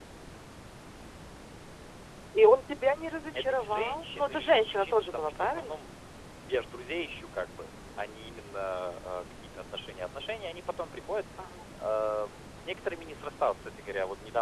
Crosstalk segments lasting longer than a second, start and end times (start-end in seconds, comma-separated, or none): 3.3-5.8